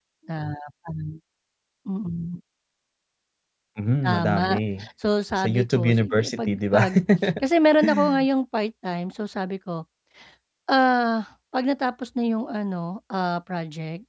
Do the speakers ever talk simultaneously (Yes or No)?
Yes